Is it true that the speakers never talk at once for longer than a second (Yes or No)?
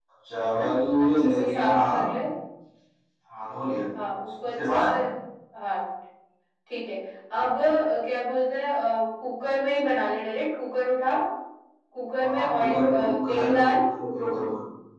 No